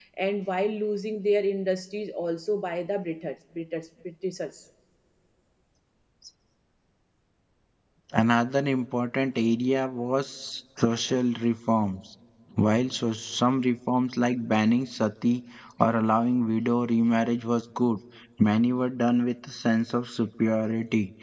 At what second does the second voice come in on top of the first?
none

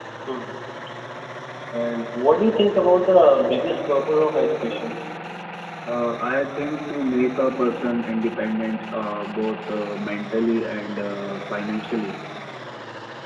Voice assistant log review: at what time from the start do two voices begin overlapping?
none

